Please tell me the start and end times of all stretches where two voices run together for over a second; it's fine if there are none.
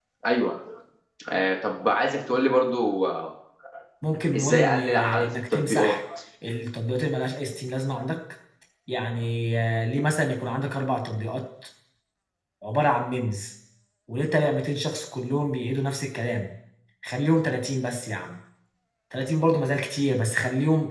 4.3-6.0

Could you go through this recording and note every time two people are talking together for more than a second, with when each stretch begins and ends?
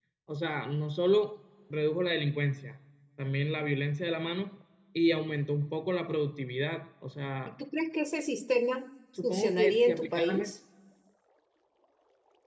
9.2-10.5

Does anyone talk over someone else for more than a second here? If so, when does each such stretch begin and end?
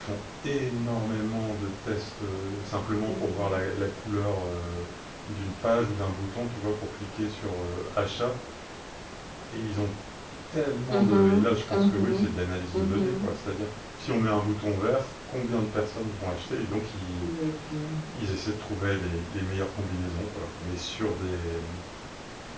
10.9-12.3

